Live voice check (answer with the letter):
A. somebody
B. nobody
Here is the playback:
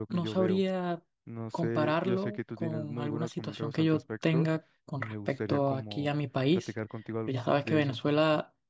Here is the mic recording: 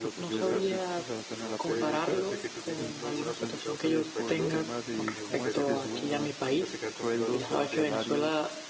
A